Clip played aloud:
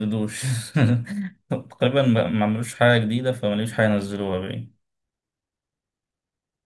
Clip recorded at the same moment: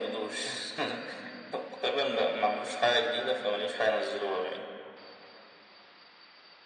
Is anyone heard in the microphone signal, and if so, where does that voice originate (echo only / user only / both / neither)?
echo only